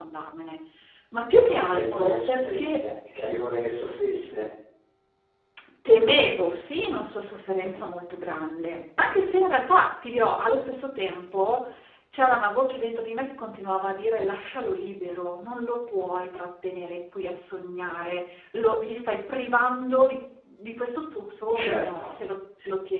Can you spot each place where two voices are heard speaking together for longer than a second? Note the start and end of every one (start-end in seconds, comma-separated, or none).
1.6-2.8